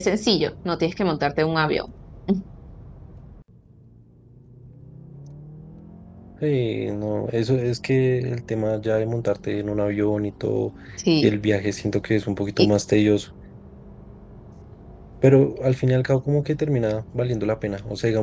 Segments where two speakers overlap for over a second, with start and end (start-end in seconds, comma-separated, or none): none